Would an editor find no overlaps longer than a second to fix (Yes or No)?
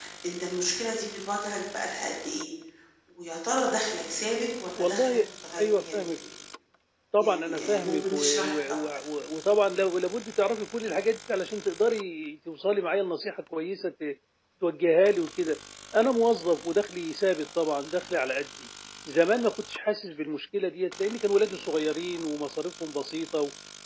No